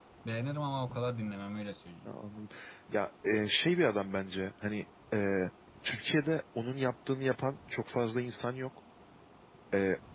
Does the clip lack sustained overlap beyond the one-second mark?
Yes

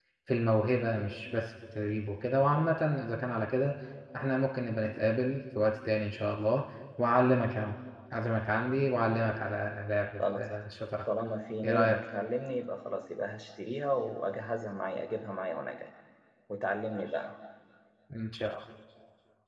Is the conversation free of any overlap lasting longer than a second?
Yes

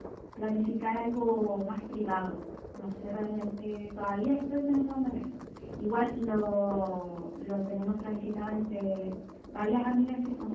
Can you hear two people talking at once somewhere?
No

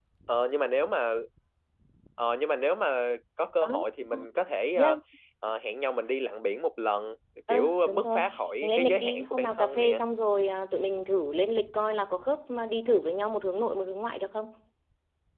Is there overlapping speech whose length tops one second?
Yes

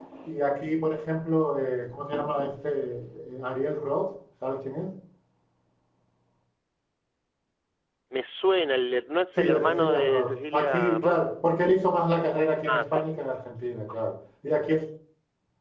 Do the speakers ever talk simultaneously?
Yes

